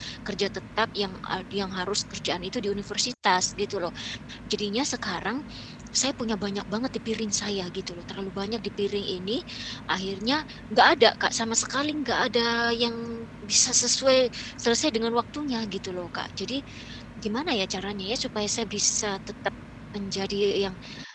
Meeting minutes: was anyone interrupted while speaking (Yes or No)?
No